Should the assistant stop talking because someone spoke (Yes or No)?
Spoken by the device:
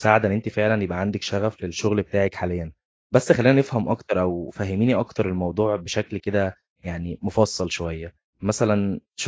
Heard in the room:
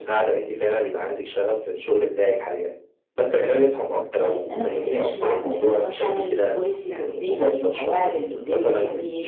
Yes